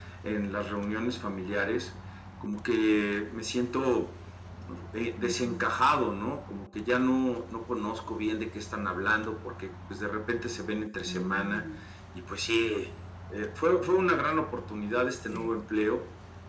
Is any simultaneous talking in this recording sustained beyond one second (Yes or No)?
No